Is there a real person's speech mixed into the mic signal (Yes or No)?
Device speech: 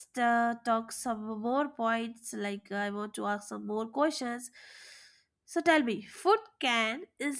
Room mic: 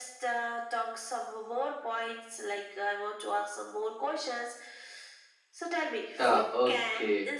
Yes